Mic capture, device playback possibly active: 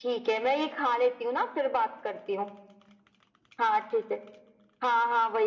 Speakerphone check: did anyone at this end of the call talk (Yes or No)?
No